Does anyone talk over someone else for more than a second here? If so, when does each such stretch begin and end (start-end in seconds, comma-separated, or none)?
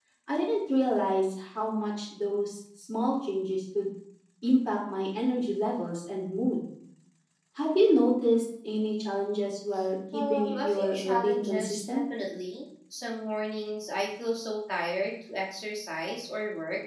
10.1-12.0